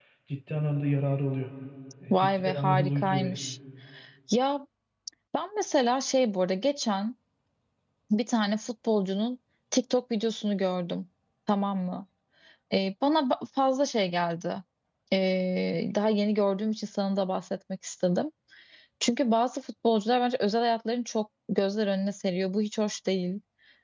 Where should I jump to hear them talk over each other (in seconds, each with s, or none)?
2.1 s